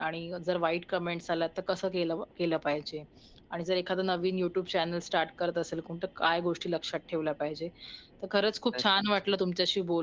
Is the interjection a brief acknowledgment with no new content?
Yes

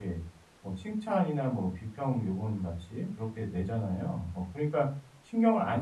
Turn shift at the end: Yes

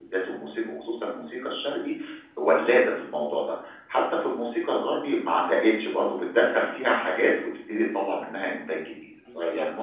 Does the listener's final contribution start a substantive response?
Yes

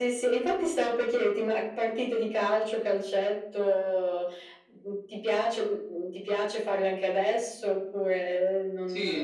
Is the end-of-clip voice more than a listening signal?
Yes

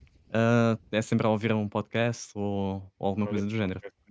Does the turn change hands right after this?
Yes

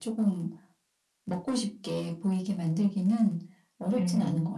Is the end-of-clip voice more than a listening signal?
Yes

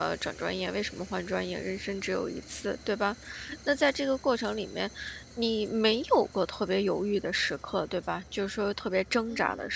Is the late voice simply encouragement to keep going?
No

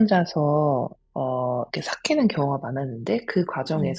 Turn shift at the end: No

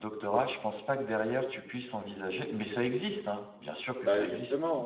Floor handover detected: Yes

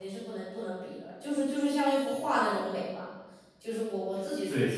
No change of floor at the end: No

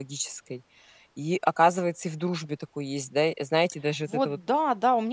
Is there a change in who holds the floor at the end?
Yes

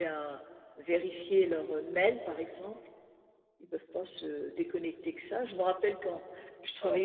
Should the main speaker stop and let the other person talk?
No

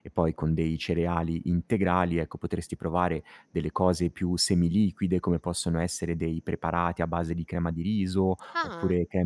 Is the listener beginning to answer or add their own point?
No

